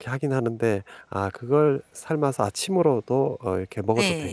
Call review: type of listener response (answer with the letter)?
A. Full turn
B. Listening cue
A